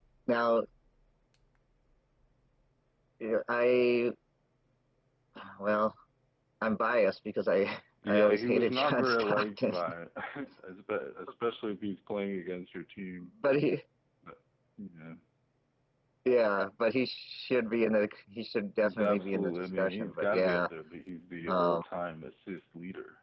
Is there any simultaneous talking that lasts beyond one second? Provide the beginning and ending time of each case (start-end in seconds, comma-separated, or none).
8.1-9.7, 18.8-20.7